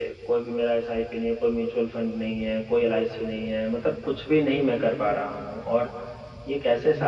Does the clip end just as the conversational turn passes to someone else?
No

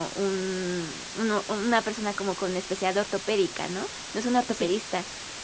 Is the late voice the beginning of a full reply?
No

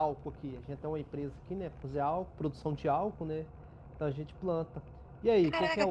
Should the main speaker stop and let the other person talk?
Yes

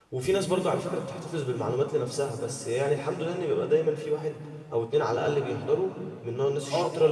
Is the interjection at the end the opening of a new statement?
Yes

